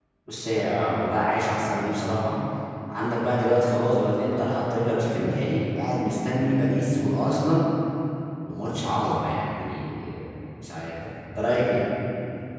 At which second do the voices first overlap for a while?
none

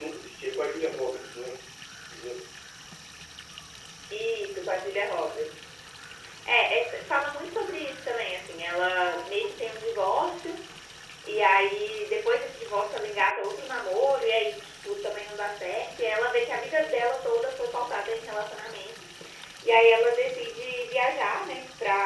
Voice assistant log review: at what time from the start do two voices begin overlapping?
none

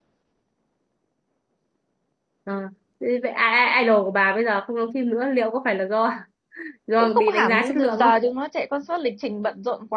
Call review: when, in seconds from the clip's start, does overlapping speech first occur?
7.0 s

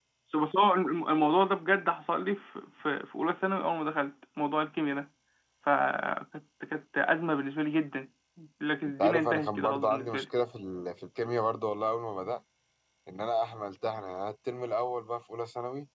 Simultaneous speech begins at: 9.0 s

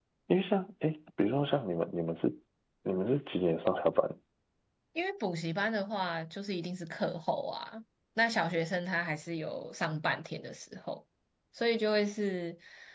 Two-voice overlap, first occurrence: none

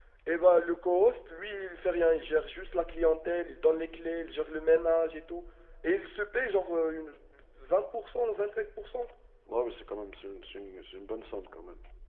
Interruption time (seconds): none

